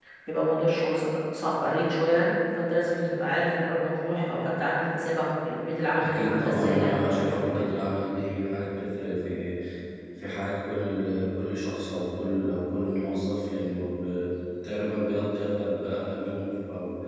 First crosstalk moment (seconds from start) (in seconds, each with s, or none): 6.0 s